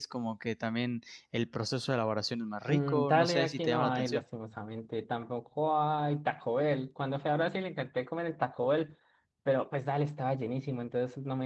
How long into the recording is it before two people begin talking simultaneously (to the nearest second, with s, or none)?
3 s